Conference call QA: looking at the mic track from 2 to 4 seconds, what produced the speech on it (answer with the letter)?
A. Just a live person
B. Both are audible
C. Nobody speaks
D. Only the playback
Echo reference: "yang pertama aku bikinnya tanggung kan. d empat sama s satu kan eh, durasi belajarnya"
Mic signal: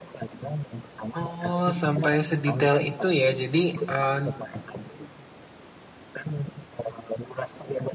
B